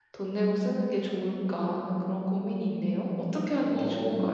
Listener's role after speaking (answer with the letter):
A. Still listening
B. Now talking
B